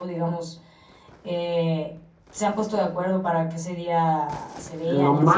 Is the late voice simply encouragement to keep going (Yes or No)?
No